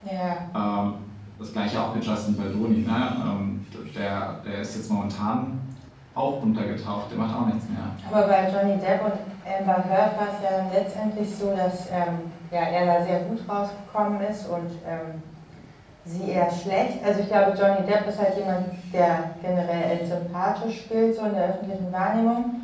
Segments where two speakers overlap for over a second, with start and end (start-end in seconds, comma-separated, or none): none